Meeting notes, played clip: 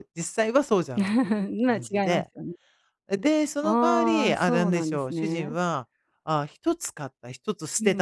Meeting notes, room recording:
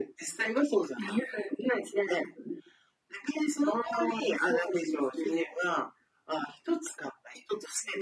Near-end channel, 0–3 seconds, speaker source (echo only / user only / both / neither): echo only